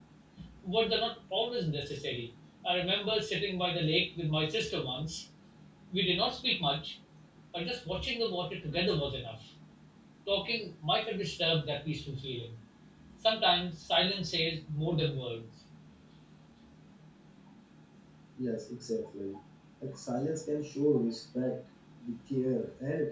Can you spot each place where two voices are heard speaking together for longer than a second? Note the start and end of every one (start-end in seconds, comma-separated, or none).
none